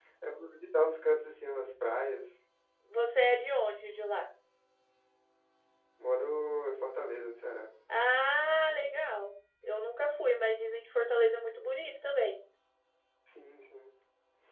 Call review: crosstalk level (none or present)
none